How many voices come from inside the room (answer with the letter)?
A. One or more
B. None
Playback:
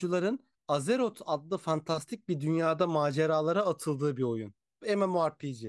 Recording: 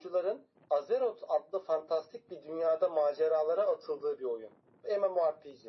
B